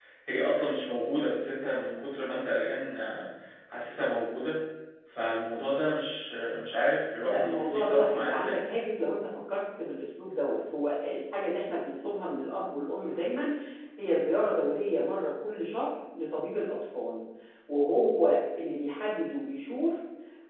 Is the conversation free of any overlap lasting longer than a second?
No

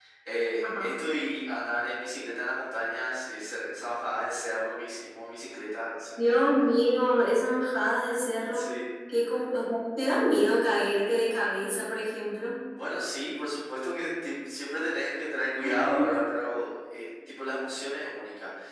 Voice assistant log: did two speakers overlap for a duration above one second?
No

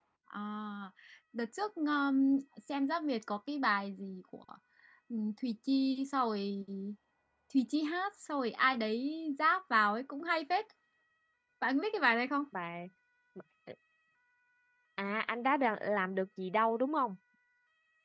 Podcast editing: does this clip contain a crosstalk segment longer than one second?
No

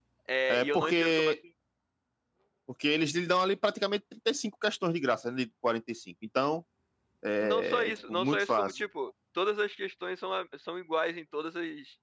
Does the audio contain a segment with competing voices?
Yes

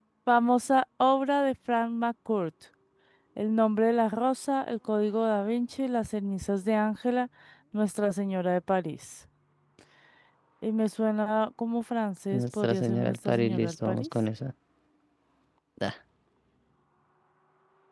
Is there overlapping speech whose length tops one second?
Yes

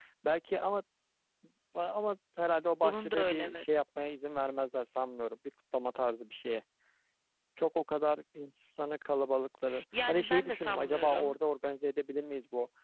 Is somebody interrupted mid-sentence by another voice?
Yes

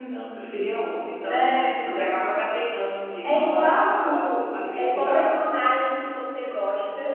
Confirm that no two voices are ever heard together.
No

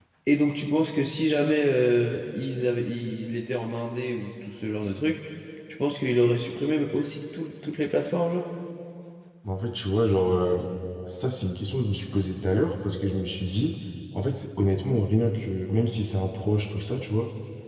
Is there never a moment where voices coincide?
Yes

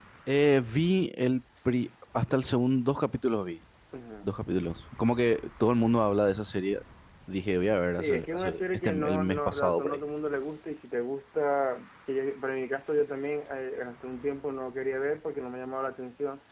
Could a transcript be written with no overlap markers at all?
No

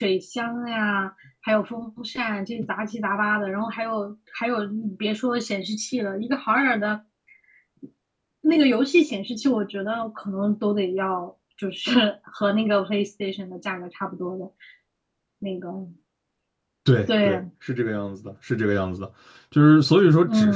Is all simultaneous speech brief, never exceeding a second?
Yes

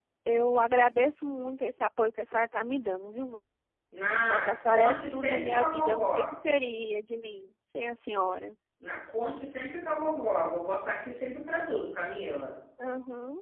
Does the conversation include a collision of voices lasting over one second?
Yes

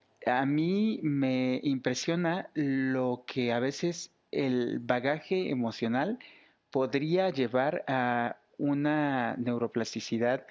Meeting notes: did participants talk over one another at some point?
No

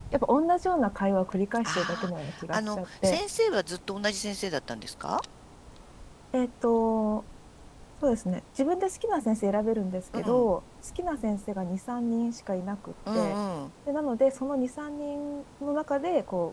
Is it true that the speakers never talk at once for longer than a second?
No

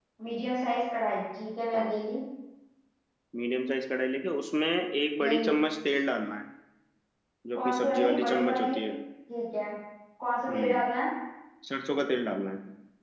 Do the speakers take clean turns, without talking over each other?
No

